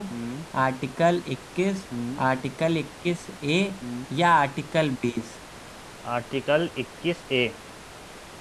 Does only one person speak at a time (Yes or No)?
Yes